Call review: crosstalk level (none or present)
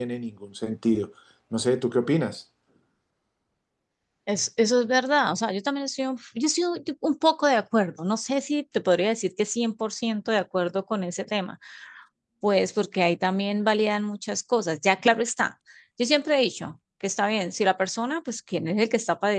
none